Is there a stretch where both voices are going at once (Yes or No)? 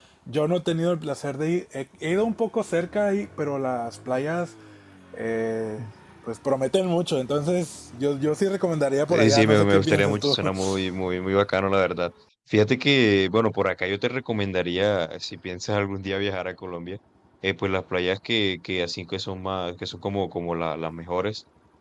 Yes